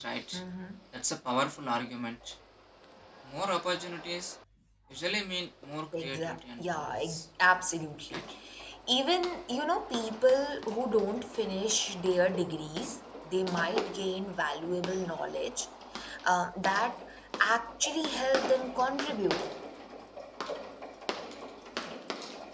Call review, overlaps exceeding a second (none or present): present